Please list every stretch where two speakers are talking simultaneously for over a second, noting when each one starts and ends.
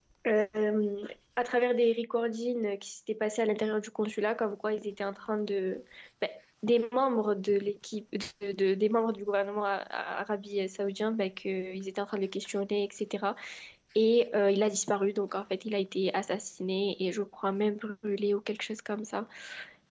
none

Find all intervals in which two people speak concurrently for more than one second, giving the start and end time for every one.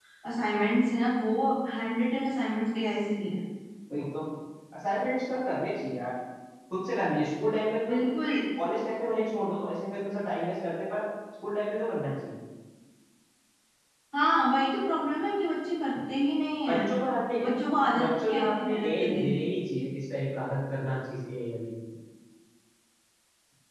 18.0-19.3

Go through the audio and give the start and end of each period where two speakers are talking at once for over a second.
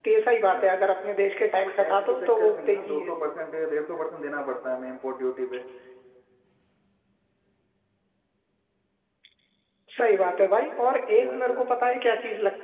1.6-3.1

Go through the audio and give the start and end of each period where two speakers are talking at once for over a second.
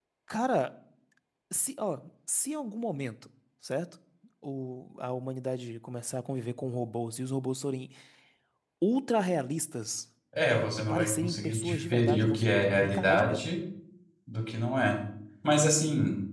10.9-13.5

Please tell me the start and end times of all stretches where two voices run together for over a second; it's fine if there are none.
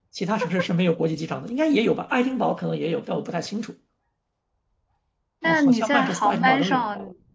5.4-6.8

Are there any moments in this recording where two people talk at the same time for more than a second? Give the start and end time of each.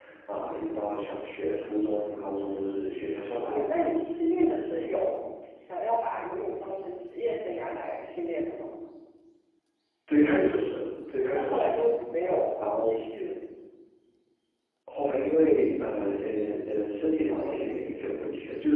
none

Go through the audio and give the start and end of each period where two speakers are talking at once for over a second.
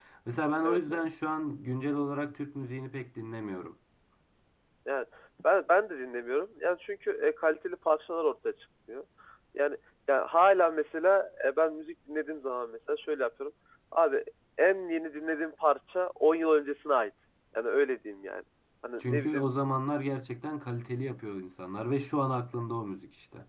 none

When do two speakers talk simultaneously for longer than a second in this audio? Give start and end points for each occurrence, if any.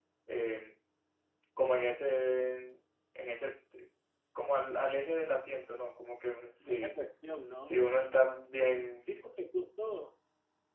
none

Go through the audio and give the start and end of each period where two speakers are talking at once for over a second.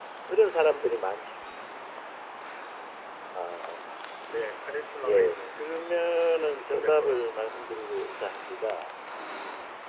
5.0-7.6

